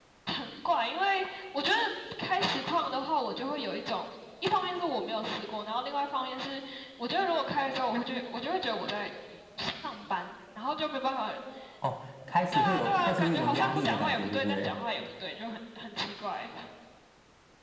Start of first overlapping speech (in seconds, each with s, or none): 12.5 s